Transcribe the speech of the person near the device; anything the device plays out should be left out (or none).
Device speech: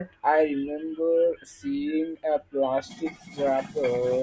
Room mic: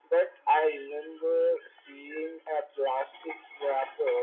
none